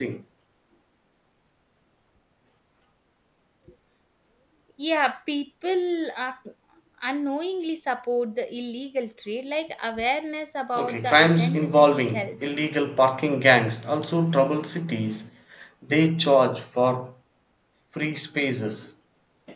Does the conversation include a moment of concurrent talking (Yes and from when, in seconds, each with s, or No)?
Yes, from 10.8 s